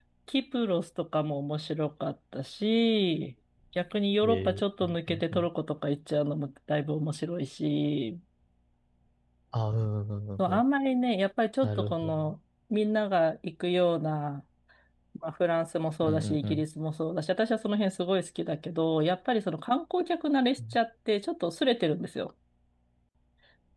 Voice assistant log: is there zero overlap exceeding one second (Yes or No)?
No